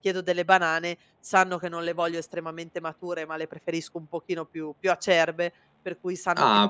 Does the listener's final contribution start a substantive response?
No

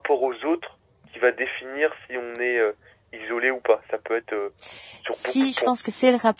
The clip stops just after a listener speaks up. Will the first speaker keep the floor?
No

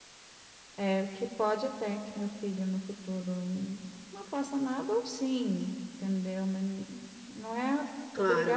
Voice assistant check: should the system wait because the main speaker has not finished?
No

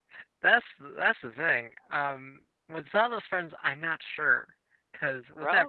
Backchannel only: Yes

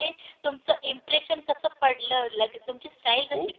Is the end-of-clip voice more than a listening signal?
No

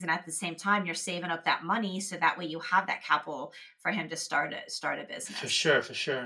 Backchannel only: No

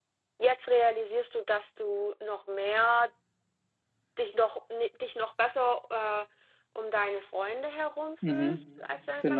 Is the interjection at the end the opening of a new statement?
Yes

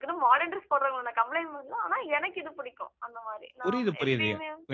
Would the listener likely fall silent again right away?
No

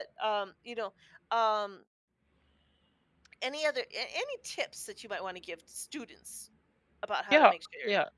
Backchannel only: No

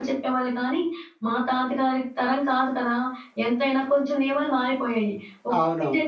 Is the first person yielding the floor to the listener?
No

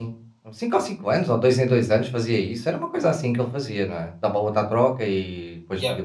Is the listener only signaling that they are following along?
No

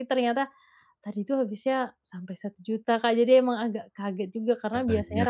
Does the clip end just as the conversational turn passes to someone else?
No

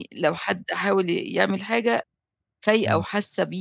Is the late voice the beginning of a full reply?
No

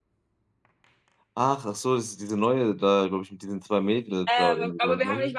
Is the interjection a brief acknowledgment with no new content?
No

